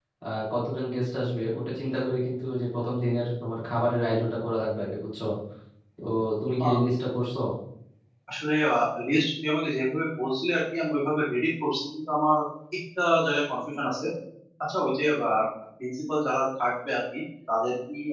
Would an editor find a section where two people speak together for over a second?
No

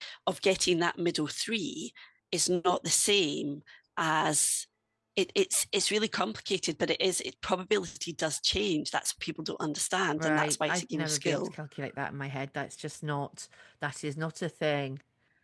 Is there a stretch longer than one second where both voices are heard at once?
Yes, from 10.2 s

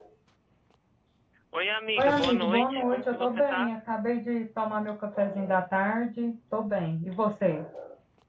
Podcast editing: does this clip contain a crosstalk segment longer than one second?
Yes, from 2.0 s

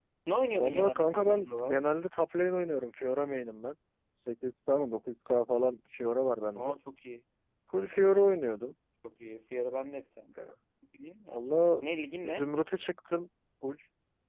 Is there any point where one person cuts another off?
Yes, from 0.6 s

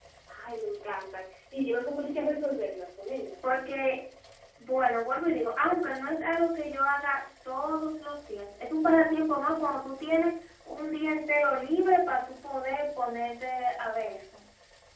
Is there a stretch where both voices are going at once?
No

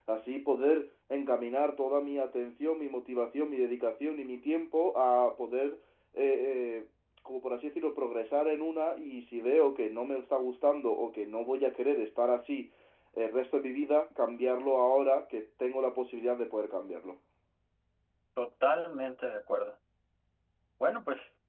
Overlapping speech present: No

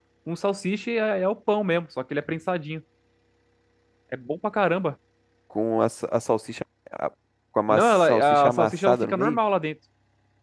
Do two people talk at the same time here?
Yes, from 7.7 s

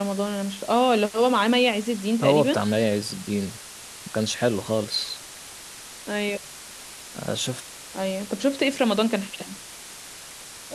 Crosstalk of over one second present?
No

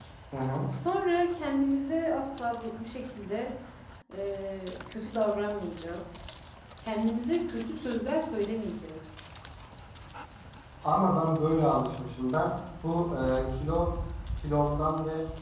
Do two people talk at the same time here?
No

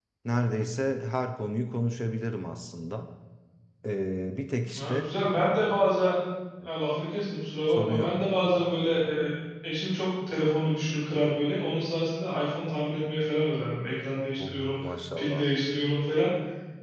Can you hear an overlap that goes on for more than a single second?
No

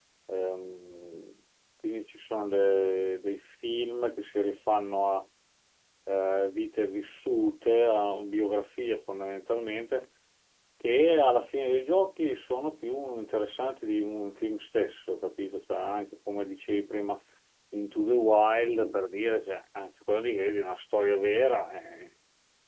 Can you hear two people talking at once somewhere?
No

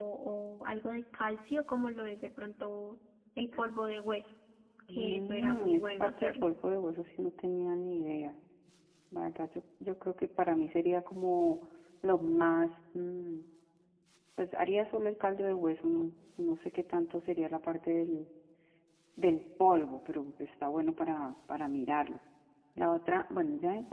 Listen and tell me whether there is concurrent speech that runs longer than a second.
Yes, from 4.9 s

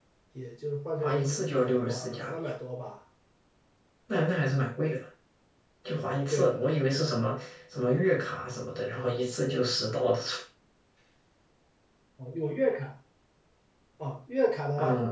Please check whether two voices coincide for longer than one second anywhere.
Yes, from 1.0 s

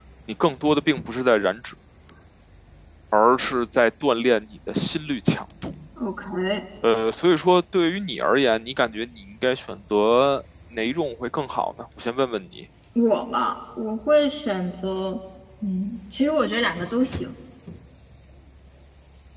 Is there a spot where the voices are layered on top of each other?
No

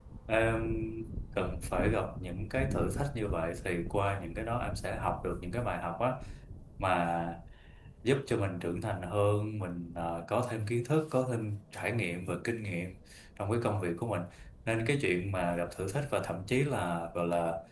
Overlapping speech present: No

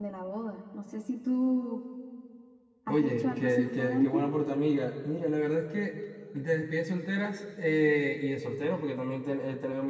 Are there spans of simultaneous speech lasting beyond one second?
Yes, from 2.9 s

